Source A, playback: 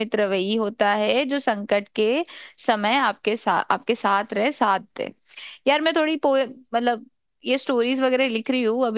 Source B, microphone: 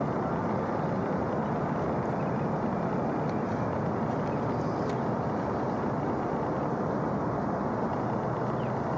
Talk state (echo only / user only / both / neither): neither